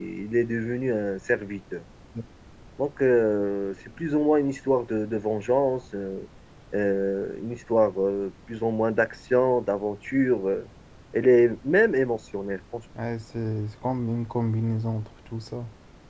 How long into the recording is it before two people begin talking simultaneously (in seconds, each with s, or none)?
none